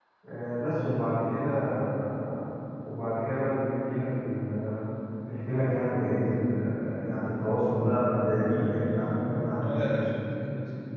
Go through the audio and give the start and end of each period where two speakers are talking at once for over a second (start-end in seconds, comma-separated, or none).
8.5-10.1